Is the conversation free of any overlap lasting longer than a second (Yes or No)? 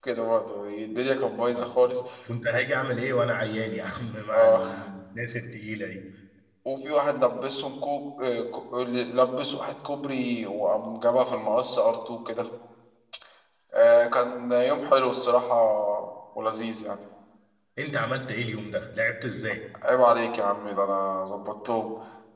Yes